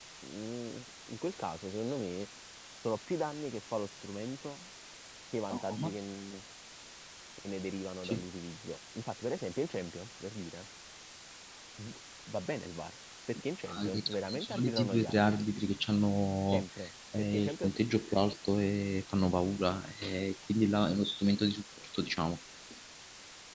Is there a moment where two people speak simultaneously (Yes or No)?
Yes